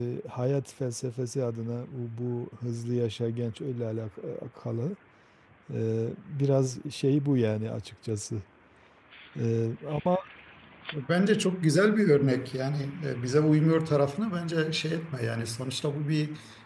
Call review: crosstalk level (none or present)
none